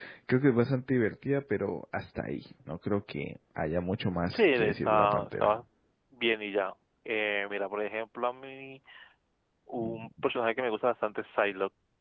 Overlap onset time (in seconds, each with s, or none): 4.3 s